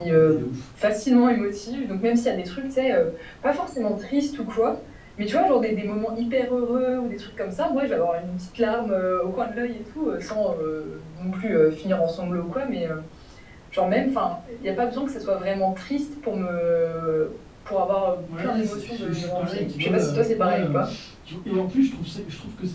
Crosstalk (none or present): present